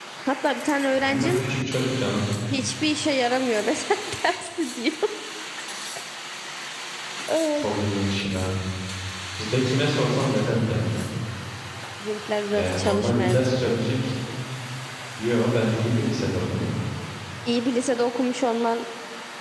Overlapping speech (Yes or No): Yes